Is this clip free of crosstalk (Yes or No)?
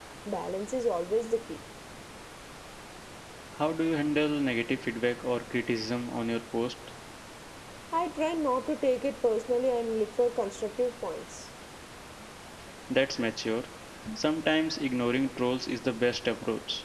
Yes